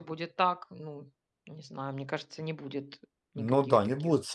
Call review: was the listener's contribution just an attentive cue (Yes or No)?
No